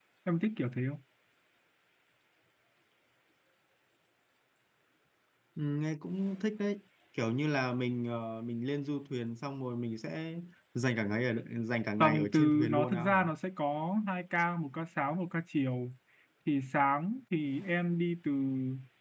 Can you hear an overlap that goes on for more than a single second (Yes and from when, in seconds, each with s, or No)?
Yes, from 12.0 s